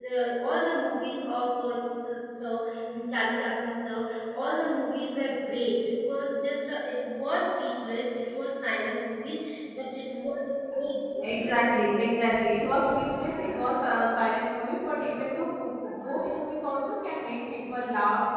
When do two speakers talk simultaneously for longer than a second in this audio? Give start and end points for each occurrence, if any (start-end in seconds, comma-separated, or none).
none